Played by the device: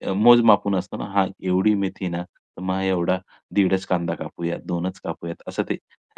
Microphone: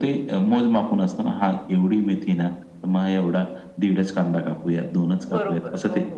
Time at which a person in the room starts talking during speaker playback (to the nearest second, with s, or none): 5 s